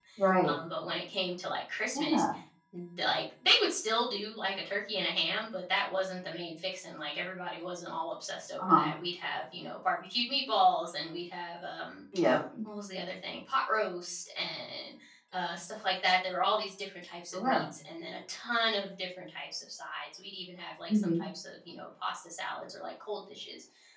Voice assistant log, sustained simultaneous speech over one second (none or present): none